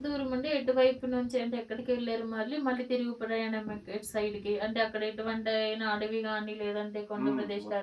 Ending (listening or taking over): taking over